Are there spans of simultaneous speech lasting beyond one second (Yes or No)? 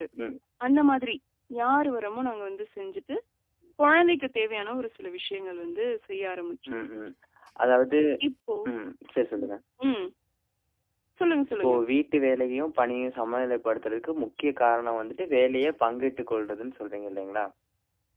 No